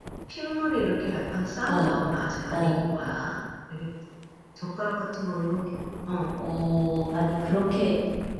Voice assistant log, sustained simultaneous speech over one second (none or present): none